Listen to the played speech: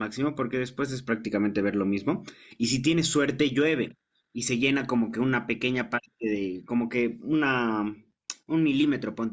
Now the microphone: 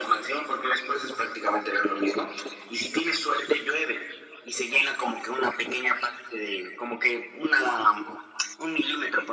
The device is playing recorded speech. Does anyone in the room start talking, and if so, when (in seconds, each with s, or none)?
none